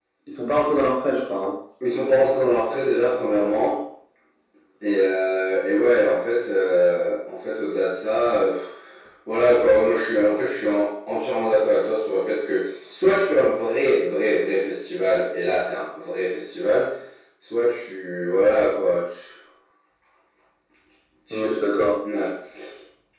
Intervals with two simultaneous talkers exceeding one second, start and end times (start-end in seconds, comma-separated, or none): none